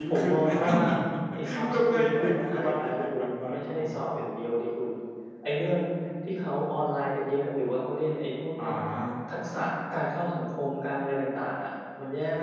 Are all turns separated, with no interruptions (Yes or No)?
No